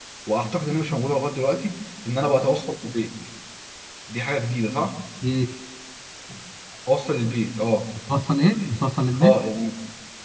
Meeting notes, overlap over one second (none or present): none